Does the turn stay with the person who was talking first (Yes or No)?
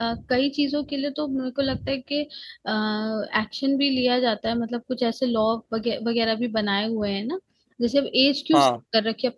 Yes